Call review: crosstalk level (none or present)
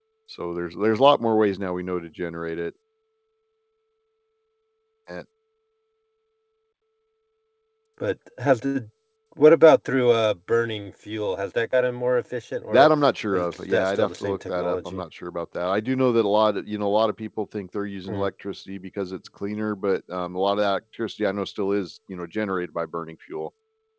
present